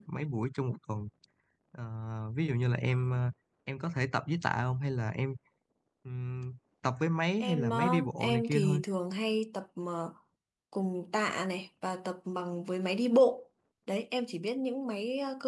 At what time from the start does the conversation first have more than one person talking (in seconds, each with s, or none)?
7.4 s